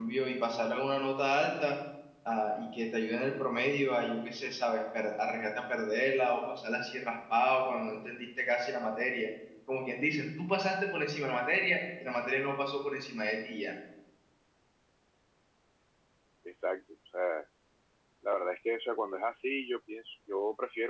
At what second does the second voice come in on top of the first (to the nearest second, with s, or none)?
none